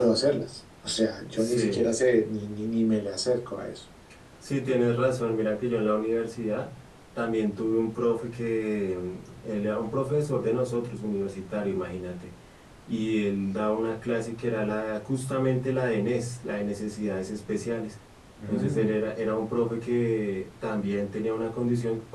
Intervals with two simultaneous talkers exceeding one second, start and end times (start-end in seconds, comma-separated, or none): none